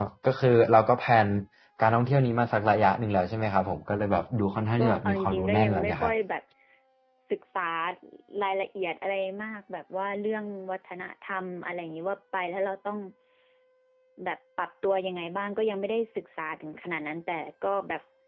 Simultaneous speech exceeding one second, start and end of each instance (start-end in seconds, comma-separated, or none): 4.8-6.1